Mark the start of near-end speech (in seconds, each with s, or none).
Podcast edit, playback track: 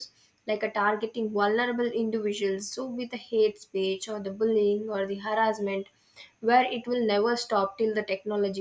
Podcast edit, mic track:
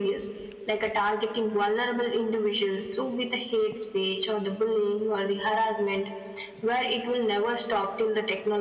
none